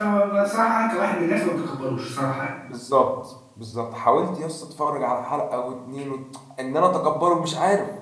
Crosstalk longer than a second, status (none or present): none